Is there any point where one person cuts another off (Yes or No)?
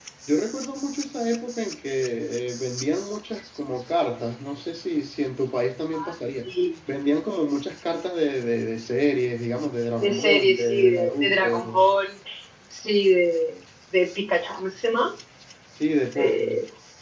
Yes